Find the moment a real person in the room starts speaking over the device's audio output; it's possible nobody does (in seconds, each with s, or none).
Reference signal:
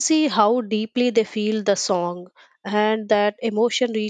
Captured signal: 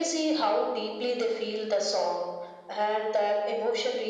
none